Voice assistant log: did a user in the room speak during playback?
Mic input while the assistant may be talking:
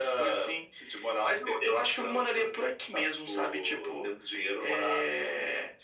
No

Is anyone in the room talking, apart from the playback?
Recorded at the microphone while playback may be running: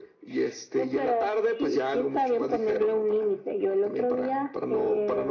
No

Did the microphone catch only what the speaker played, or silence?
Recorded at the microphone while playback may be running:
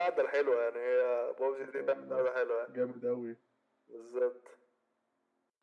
No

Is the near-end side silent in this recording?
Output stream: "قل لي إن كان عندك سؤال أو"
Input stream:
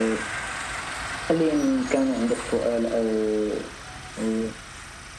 Yes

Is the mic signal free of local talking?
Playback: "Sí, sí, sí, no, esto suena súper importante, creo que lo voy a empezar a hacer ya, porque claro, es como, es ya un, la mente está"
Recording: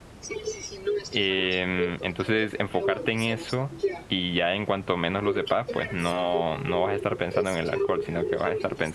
No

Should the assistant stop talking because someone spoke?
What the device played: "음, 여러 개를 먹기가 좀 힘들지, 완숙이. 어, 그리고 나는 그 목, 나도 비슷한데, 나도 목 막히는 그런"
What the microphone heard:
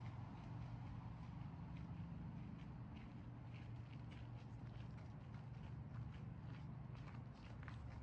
No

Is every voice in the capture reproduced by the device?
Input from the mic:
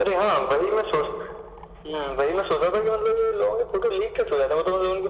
Yes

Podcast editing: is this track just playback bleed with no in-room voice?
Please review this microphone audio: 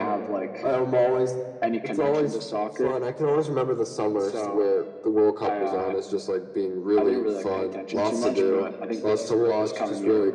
No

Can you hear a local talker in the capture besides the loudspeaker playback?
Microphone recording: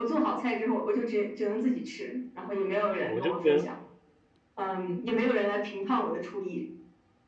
Yes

